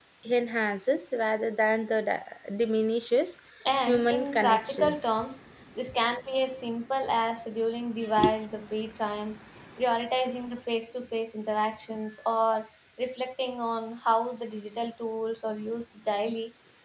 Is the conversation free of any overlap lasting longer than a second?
No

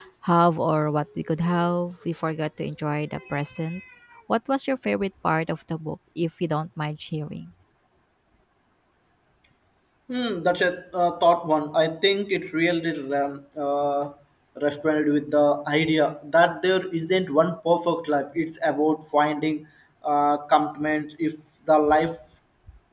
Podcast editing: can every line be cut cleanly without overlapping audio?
Yes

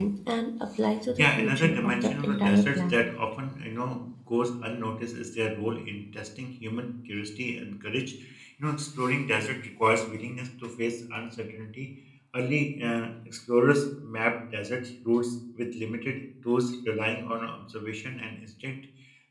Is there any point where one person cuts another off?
Yes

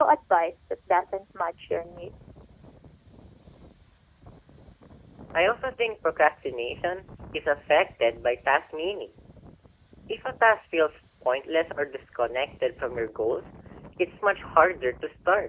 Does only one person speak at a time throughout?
Yes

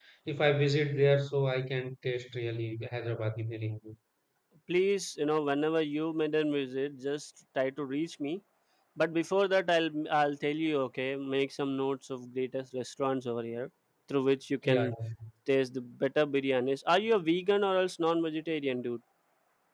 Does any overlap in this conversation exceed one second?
No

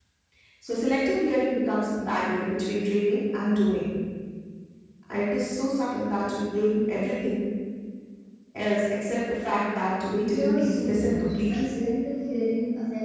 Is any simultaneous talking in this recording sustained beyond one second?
Yes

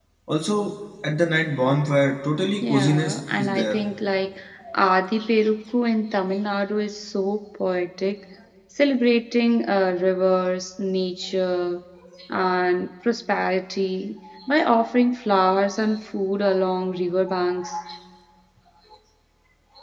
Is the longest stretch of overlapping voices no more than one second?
No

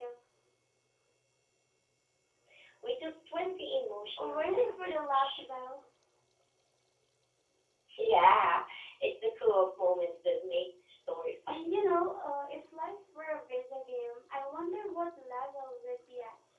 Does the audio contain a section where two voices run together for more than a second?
Yes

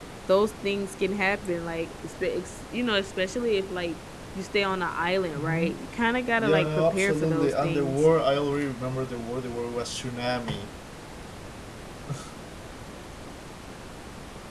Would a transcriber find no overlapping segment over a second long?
No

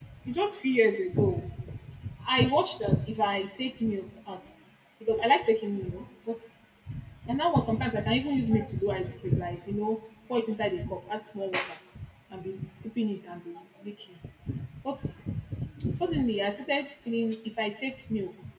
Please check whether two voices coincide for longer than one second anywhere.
No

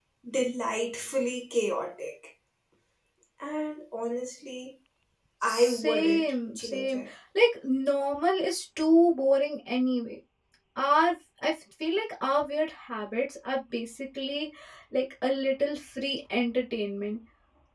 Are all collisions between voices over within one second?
No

